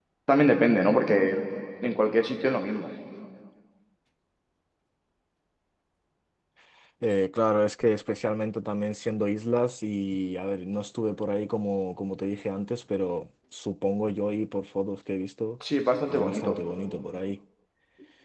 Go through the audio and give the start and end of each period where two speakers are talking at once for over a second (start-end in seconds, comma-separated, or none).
none